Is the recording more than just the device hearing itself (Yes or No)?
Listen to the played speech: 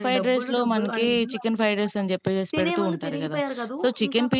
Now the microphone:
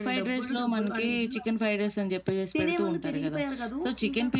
No